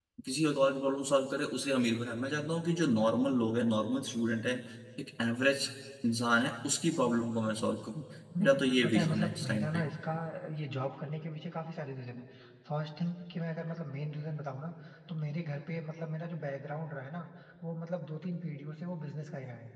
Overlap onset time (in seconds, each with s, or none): 8.4 s